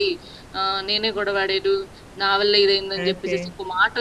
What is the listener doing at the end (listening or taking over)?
listening